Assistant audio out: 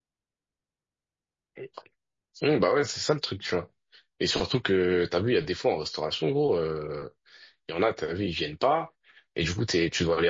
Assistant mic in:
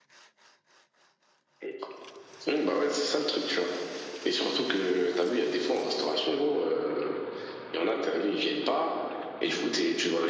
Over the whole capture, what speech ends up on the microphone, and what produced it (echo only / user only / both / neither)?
echo only